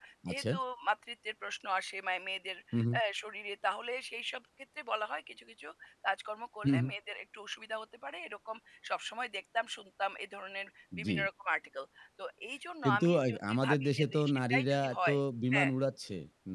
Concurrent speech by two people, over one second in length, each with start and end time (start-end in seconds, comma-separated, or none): 12.8-15.2